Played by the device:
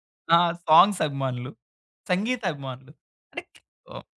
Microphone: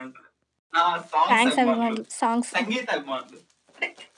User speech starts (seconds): 1 s

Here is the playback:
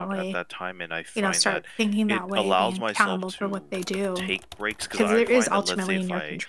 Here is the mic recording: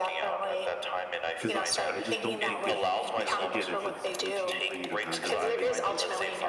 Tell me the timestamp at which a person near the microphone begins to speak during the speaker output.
1 s

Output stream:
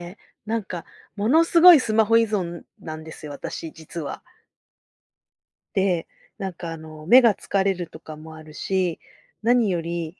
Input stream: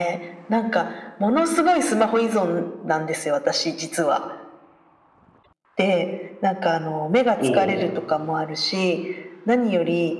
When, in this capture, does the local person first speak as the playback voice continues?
7 s

